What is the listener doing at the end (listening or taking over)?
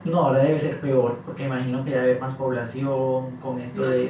listening